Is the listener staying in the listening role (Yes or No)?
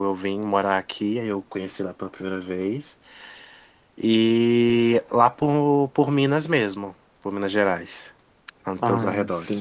No